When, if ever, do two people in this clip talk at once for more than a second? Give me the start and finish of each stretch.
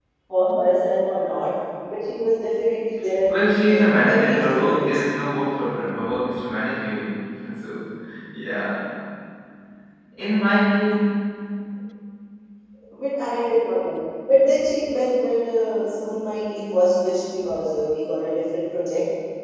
3.7-5.0

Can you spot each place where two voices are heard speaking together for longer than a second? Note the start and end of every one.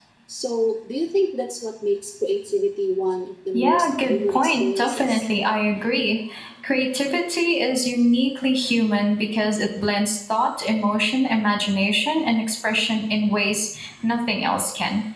3.5-5.2

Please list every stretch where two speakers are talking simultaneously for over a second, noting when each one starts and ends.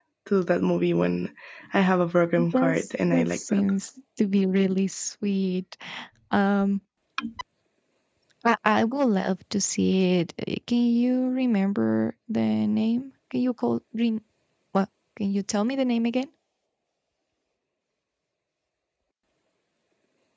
2.4-3.6

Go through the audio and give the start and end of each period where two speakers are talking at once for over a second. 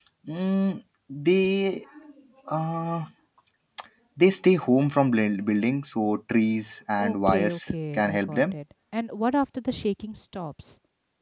7.0-8.5

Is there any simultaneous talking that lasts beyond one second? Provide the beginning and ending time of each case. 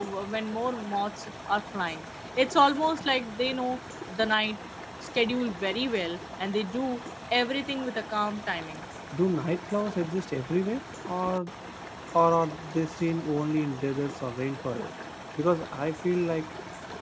none

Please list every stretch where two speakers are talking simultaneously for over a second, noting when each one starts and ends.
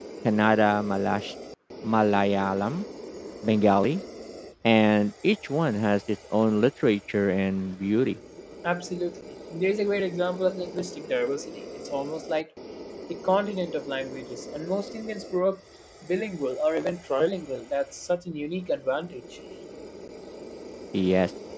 none

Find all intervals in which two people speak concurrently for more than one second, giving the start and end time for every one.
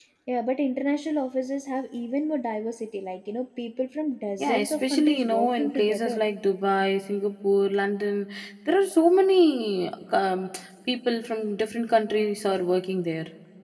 4.4-6.2

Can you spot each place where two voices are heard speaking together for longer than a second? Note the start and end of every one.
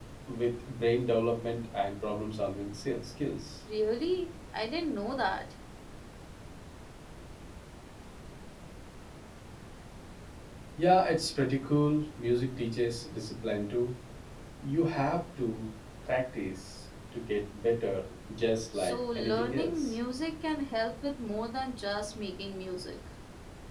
18.7-19.9

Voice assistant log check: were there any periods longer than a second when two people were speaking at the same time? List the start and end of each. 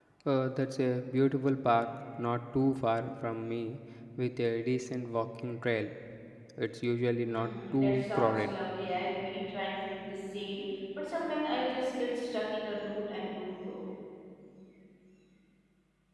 7.2-8.5

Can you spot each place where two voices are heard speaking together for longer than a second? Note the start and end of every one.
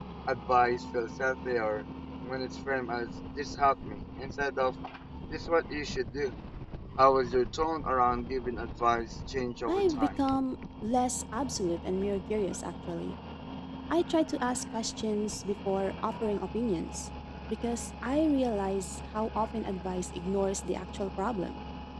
none

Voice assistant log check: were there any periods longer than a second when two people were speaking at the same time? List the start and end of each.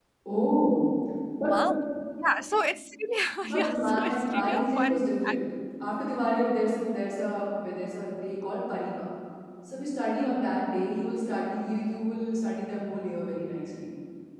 3.4-5.4

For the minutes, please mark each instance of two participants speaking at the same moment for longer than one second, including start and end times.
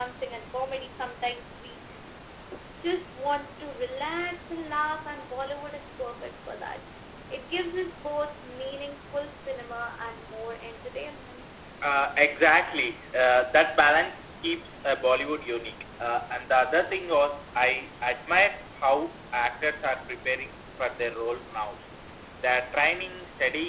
none

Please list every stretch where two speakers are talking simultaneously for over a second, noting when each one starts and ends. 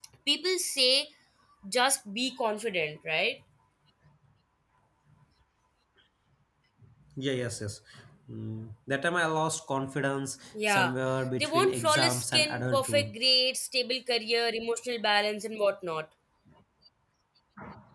11.4-13.1

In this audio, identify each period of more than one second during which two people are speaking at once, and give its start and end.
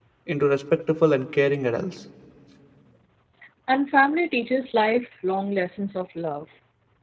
none

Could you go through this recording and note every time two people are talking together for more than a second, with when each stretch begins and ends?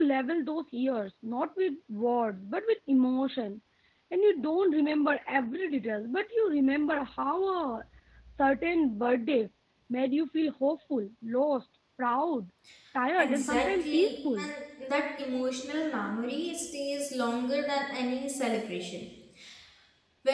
13.2-14.5

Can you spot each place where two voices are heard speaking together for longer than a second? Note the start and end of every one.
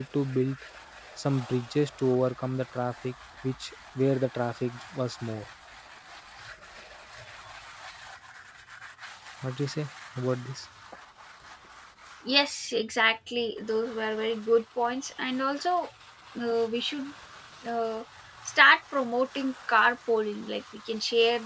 none

